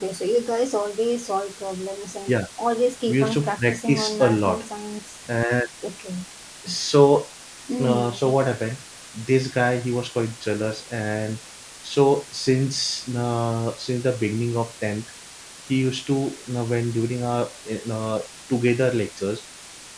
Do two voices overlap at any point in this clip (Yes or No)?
Yes